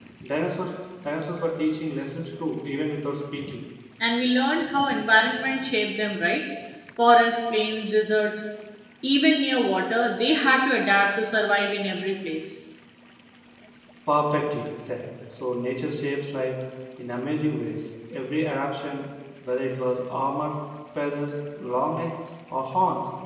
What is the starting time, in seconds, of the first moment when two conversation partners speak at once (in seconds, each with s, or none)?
none